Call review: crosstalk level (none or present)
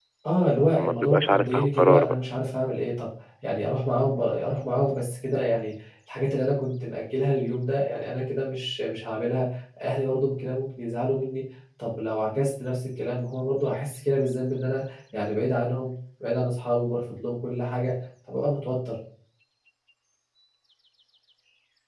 present